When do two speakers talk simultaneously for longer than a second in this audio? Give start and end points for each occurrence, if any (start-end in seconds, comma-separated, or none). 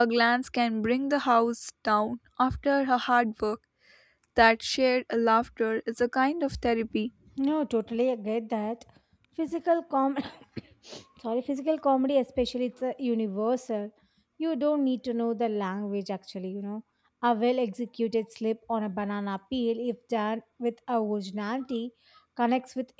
none